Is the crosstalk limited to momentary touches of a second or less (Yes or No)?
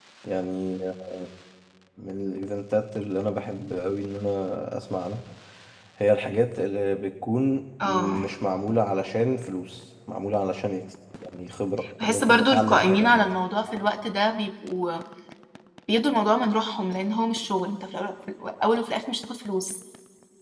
No